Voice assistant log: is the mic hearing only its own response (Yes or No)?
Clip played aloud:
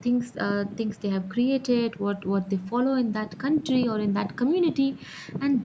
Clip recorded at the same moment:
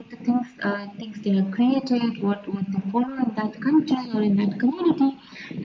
Yes